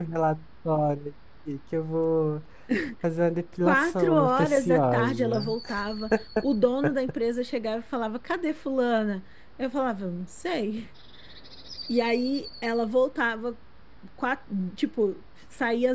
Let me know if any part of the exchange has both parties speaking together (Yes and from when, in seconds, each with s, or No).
Yes, from 3.6 s